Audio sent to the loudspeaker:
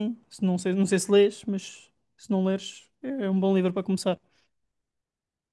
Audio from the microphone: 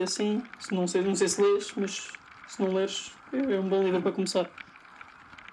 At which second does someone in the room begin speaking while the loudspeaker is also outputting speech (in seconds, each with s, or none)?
none